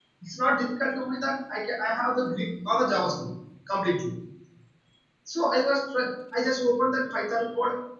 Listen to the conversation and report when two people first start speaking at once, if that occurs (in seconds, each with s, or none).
none